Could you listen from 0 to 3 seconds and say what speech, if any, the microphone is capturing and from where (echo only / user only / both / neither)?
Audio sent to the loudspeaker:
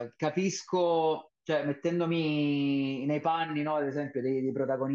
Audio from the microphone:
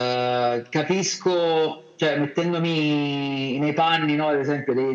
echo only